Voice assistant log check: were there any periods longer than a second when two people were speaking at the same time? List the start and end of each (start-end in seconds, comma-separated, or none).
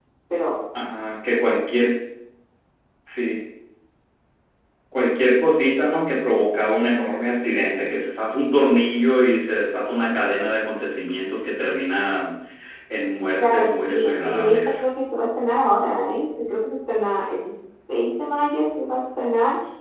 13.4-14.8